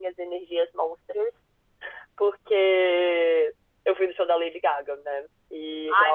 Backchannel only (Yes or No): No